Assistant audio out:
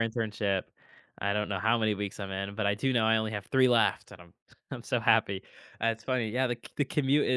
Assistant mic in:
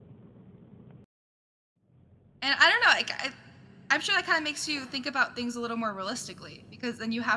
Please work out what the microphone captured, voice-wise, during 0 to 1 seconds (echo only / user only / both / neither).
neither